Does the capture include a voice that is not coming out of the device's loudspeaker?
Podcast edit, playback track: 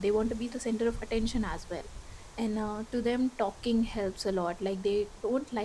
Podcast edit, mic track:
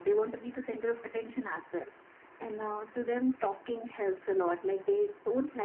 No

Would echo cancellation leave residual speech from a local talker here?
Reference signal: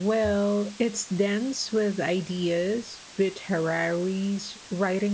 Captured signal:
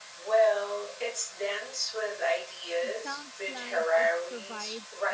Yes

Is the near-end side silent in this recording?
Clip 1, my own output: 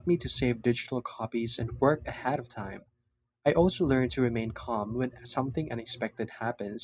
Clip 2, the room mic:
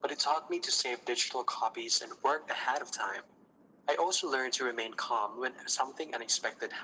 Yes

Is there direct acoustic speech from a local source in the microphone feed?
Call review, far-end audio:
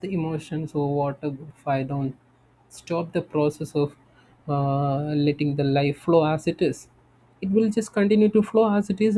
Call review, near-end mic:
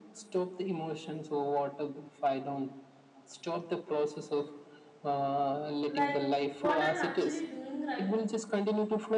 Yes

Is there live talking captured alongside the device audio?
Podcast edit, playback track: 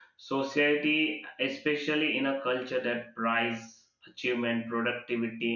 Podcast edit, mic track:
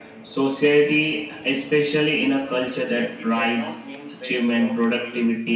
Yes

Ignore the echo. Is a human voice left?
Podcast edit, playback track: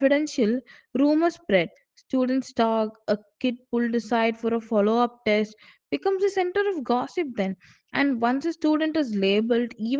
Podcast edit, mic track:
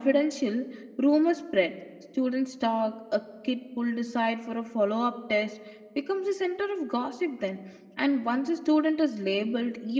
No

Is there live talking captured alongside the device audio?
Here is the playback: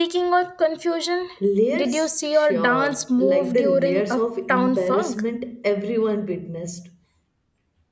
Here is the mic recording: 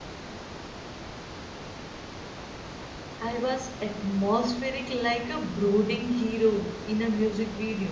Yes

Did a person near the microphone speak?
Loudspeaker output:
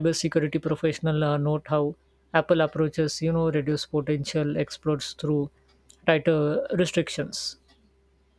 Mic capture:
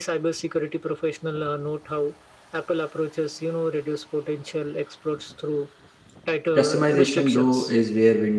Yes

